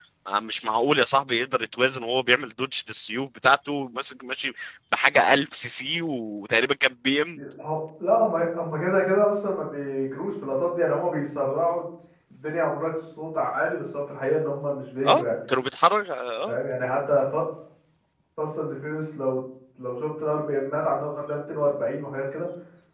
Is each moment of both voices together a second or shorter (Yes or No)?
Yes